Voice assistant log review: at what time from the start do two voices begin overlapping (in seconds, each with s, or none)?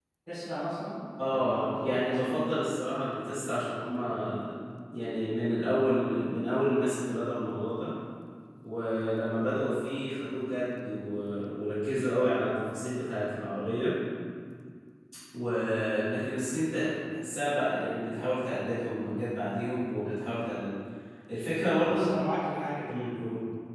1.2 s